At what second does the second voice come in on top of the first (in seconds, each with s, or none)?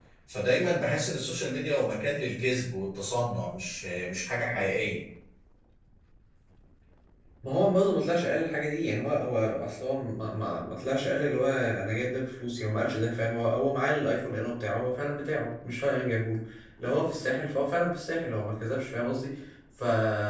none